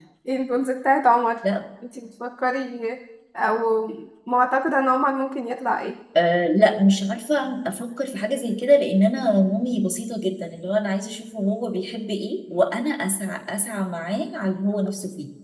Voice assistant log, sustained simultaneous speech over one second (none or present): none